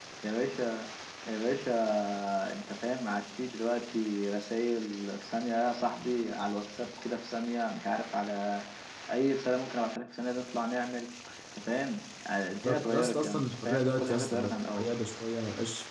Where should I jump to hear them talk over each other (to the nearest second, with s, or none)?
13 s